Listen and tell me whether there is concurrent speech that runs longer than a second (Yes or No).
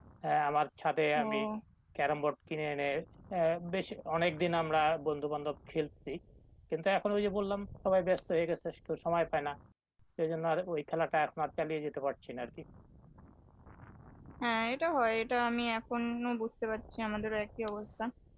No